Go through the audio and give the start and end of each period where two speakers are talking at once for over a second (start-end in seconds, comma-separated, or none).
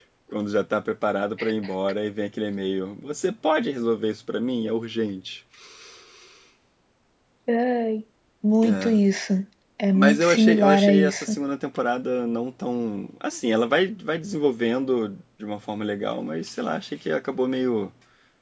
9.9-11.3